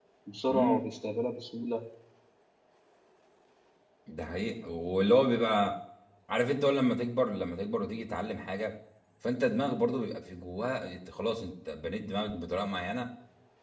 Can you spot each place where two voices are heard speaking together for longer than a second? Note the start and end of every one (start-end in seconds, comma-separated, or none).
none